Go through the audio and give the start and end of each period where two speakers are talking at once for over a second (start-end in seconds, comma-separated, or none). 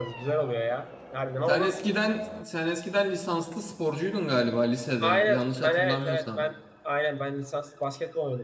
5.0-6.5